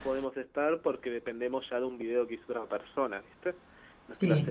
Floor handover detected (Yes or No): No